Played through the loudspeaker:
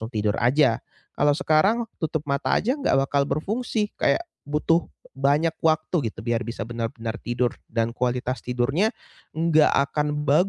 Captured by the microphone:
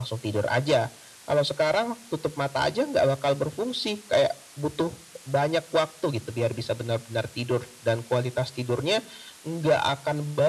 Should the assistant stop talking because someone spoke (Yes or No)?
No